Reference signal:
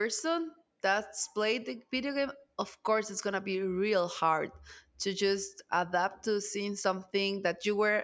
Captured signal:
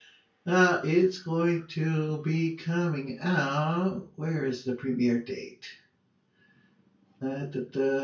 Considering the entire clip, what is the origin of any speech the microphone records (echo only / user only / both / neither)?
user only